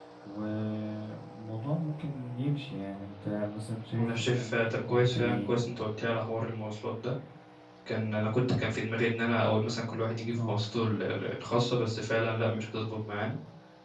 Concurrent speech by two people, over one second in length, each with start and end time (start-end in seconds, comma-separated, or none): 4.0-5.5